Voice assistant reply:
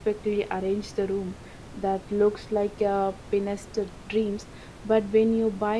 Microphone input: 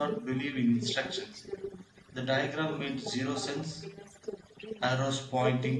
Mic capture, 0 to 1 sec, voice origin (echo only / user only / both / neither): both